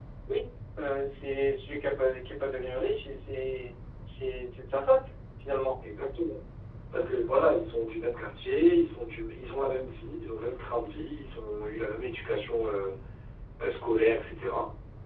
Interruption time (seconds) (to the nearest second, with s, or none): none